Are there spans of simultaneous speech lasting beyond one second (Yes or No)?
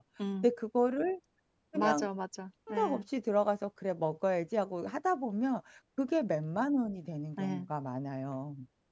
No